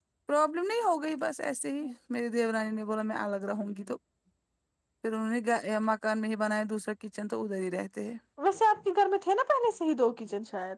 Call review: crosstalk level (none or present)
none